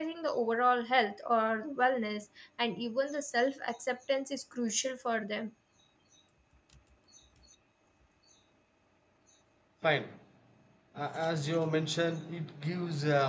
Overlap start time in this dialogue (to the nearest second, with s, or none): none